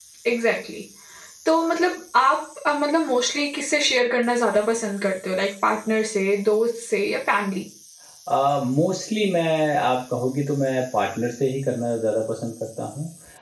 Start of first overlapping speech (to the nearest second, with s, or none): none